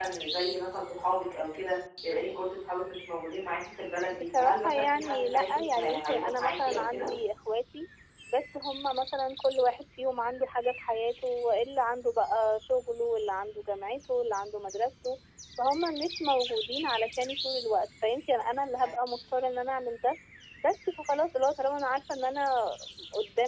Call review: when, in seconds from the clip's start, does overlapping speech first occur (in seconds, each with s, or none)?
4.2 s